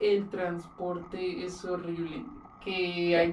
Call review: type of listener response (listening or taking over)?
listening